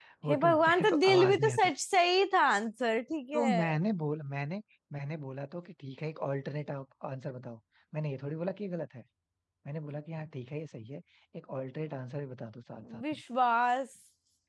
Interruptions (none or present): present